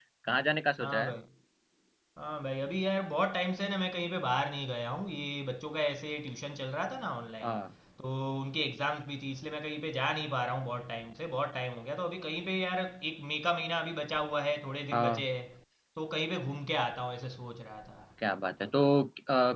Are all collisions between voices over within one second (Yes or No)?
Yes